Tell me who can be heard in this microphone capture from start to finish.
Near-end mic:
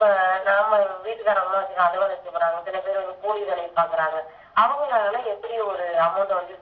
echo only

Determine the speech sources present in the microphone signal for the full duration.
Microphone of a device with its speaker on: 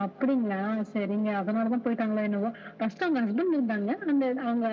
echo only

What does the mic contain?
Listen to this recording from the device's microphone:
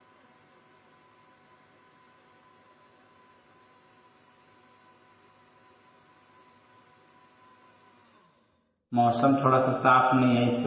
user only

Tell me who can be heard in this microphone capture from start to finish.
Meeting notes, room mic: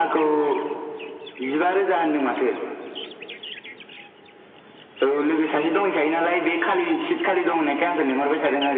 echo only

